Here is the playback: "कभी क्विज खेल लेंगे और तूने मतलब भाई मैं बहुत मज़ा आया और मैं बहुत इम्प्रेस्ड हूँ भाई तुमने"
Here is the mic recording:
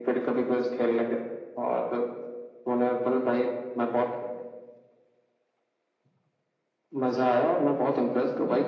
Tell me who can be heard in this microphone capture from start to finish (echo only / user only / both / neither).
echo only